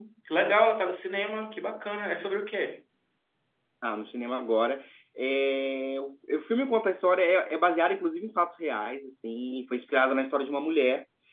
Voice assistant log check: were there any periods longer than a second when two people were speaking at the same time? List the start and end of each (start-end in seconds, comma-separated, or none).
none